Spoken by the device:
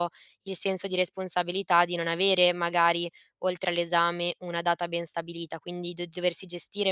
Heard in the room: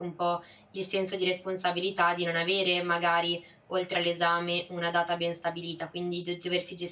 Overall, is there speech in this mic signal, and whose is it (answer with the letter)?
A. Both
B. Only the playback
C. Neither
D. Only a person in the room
B